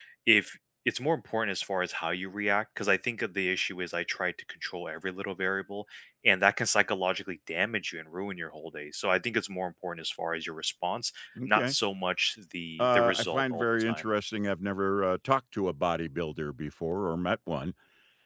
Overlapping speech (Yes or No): Yes